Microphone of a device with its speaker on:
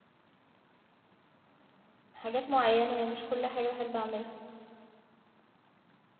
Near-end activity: present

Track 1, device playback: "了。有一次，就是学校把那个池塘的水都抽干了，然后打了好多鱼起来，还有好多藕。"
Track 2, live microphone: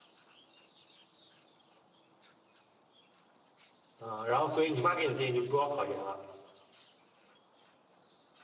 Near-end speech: present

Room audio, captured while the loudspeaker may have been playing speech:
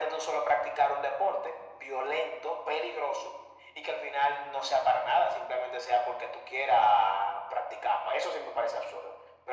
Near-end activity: none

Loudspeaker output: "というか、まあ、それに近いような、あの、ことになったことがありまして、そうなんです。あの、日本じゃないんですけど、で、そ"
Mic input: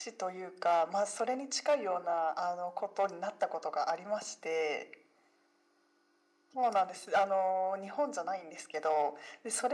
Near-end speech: none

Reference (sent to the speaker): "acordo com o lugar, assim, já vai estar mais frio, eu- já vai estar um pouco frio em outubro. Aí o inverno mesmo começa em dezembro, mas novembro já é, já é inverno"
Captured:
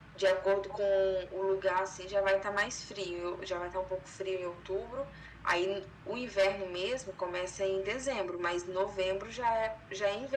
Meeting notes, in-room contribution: none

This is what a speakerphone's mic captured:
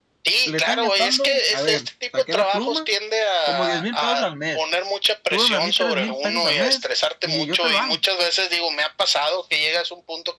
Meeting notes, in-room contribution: present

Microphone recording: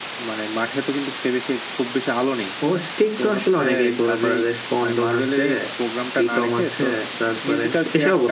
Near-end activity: none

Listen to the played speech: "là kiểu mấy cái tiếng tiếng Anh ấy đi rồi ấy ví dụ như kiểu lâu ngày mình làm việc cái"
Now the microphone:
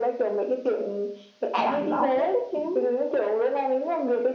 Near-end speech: present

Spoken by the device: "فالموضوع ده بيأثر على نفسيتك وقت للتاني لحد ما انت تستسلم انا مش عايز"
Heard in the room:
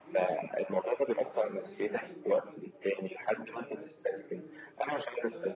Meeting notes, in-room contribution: present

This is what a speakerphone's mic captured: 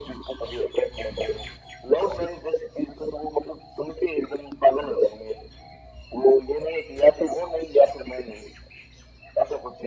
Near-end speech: none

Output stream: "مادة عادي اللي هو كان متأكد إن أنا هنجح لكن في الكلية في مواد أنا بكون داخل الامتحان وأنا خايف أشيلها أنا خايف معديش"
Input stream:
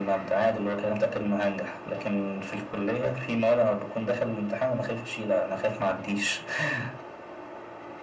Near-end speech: none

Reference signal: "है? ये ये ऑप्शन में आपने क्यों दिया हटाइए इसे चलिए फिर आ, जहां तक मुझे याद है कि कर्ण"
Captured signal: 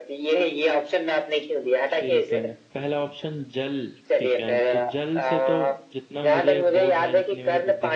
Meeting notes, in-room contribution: present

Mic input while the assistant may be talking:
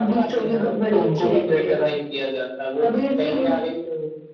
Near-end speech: none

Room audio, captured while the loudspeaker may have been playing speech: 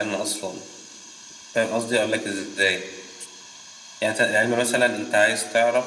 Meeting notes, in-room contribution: none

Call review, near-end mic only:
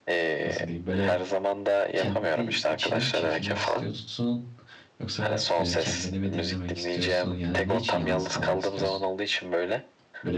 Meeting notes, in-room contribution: present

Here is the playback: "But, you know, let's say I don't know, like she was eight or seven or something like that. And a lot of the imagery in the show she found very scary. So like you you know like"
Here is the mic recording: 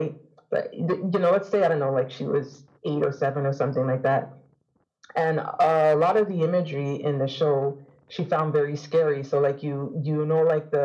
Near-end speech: none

